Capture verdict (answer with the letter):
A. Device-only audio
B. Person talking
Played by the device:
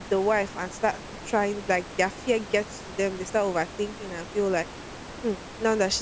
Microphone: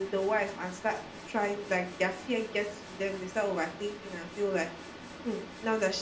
A